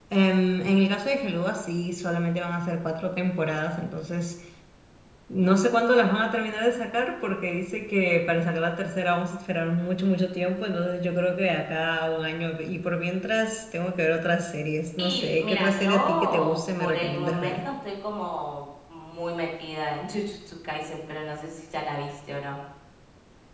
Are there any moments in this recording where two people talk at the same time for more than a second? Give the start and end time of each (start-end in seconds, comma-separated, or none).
15.0-17.6